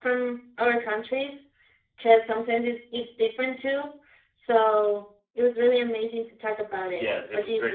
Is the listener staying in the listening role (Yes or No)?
No